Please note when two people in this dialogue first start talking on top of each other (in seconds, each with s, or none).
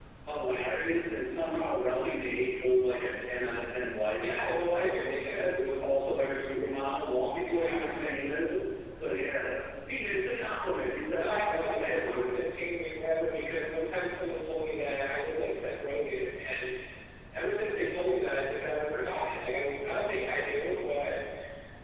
4.2 s